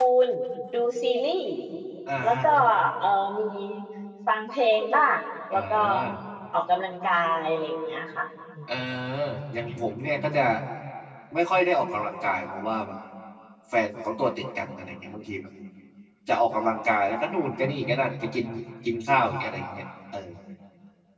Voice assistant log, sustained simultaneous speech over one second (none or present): none